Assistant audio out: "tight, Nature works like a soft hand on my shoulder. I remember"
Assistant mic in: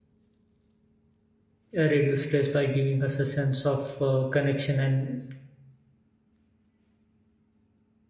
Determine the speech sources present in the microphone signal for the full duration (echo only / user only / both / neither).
user only